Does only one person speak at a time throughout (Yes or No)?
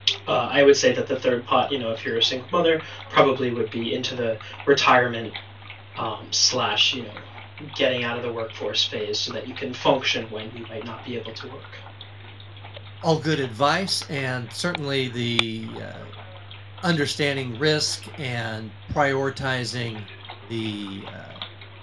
Yes